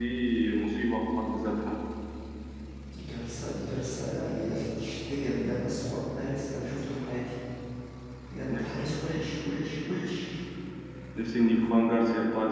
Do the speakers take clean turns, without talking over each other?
Yes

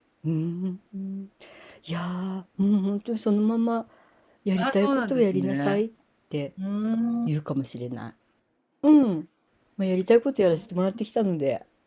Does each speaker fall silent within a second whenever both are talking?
No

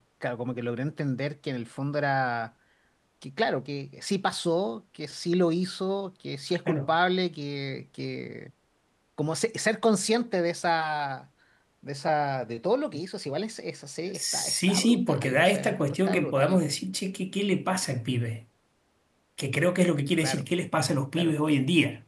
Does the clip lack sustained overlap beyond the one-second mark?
No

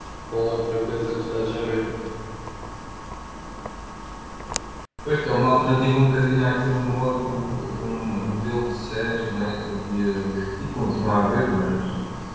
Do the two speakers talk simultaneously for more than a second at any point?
No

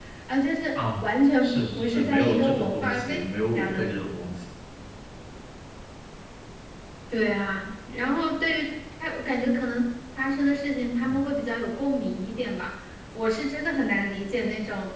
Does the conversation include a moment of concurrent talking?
Yes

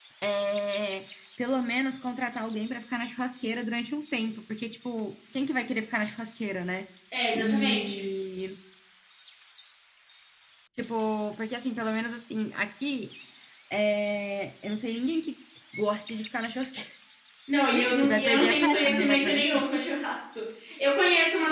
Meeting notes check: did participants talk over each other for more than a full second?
Yes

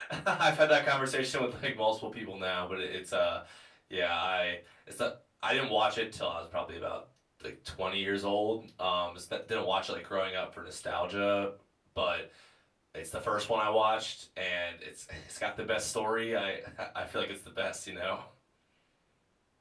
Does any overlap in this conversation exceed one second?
No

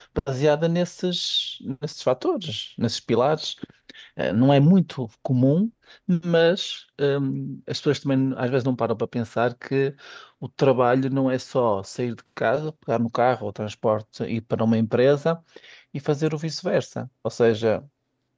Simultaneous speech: No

